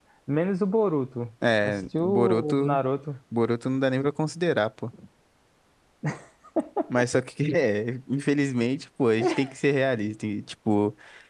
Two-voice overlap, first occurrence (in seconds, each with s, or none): 1.6 s